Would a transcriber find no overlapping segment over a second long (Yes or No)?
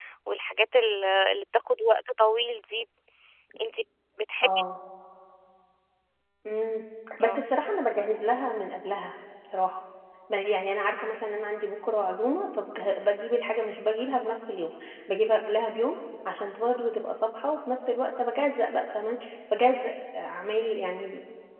Yes